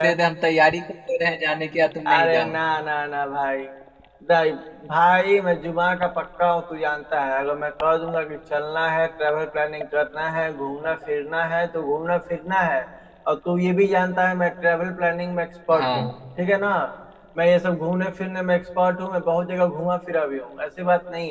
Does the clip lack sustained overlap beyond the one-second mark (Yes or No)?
Yes